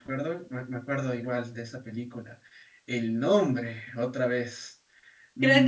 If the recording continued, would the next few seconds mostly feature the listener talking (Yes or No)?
Yes